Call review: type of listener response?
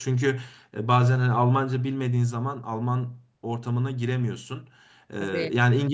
listening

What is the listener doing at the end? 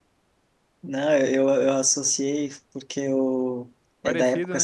listening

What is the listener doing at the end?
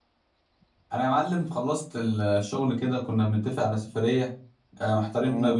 listening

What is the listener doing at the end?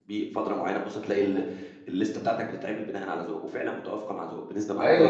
taking over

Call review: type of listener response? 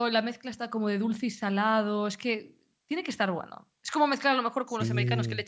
listening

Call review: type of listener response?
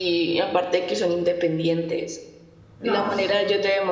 listening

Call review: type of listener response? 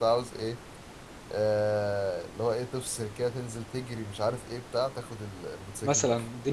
taking over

